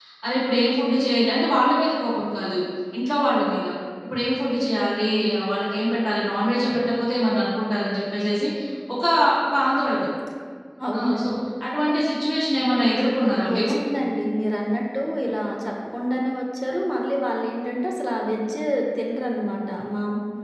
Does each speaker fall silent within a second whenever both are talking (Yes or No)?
Yes